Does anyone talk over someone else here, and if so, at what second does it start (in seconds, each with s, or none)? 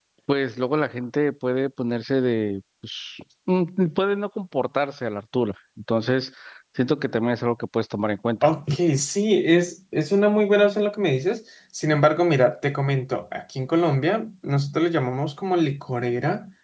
none